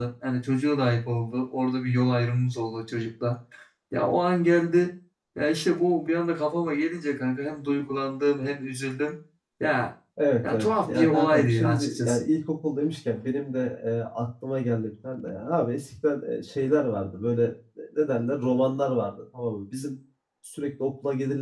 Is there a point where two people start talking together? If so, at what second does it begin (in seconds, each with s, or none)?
10.4 s